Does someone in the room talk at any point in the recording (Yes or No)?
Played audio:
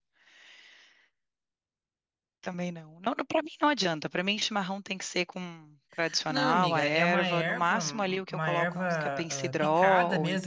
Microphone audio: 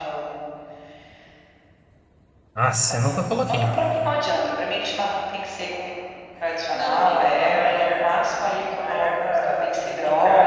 Yes